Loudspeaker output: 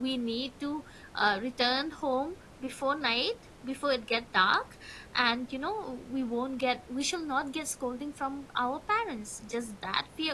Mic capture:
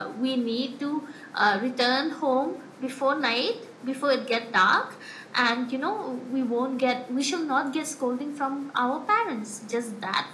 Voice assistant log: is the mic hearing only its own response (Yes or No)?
Yes